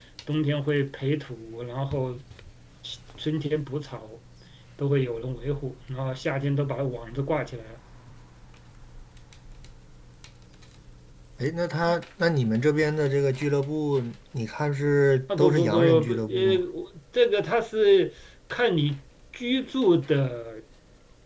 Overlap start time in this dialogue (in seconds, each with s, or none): 15.3 s